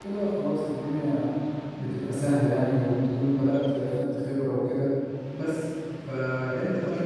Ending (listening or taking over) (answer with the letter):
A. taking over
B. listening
B